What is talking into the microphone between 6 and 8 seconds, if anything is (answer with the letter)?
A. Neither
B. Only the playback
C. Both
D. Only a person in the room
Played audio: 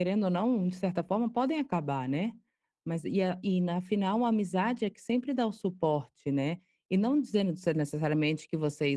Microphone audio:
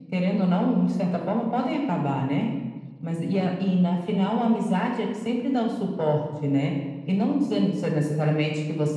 B